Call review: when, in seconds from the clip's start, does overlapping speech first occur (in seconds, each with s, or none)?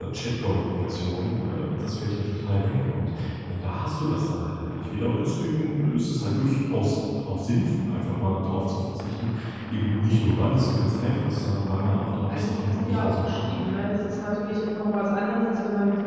12.1 s